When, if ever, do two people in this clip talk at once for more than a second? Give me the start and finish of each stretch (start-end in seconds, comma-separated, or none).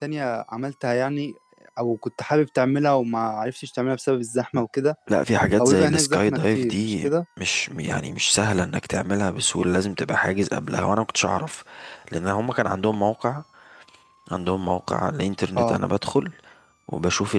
5.6-7.1